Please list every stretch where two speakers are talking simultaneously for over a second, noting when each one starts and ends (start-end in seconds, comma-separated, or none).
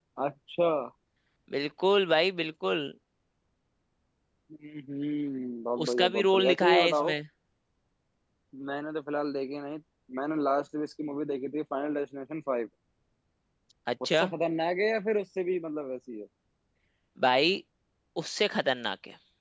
5.8-7.1